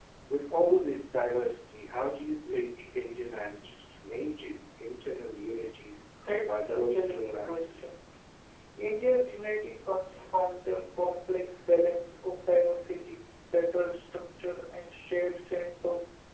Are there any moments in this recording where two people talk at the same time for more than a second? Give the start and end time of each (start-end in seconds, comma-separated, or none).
6.5-7.8